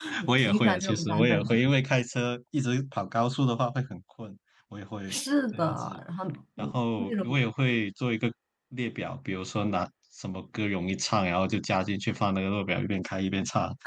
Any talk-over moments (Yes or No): Yes